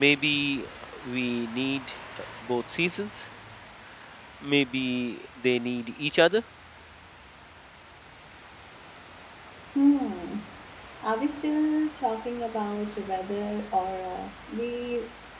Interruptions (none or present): none